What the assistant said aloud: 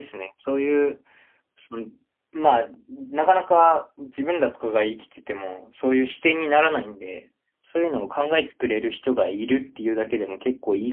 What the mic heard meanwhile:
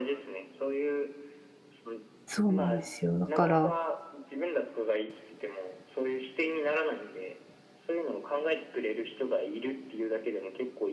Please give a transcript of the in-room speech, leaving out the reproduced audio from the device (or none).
そうなんですよ。だから